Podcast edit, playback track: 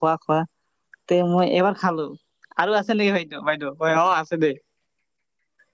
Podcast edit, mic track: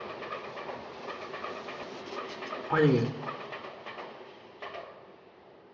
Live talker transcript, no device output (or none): হয় নেকি।